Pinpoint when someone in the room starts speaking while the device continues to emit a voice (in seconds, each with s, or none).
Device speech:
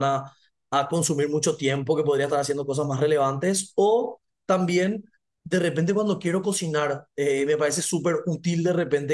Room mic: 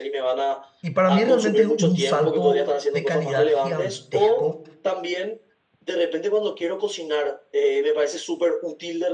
0.8 s